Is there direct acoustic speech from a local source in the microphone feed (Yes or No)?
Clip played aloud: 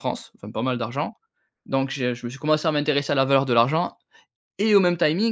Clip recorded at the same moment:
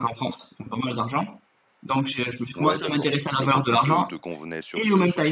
Yes